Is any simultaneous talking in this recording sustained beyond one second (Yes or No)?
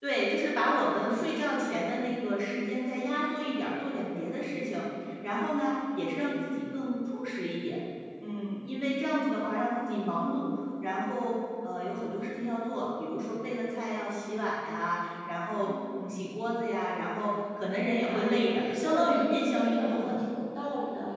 Yes